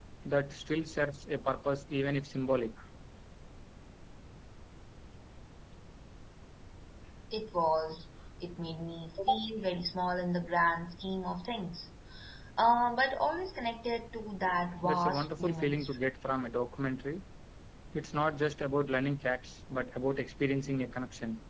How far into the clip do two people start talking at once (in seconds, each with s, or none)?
14.8 s